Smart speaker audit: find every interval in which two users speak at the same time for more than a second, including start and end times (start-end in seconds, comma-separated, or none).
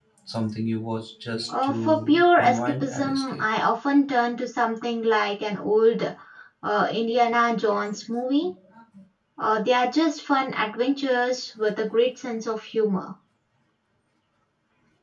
1.5-3.4